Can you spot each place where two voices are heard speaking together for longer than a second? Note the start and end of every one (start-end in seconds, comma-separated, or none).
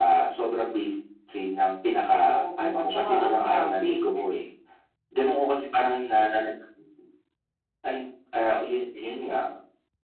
2.3-4.0